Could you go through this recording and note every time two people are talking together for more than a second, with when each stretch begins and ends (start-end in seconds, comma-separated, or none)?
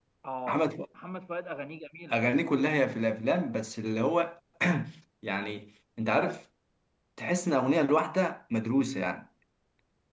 none